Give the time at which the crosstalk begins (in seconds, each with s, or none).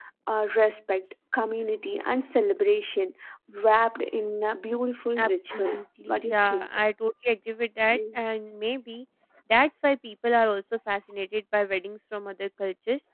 5.2 s